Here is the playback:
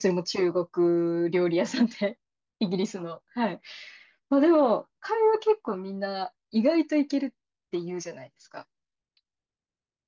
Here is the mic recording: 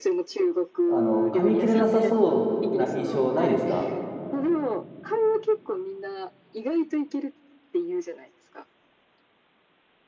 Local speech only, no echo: あの、噛み切れなさそうな印象ないですか

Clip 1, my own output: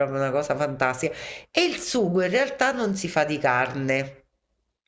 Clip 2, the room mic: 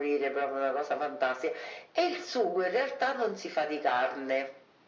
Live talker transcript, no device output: none

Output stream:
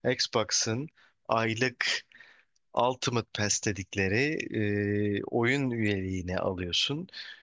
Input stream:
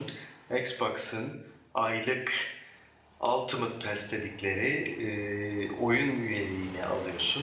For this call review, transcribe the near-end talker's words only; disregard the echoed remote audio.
none

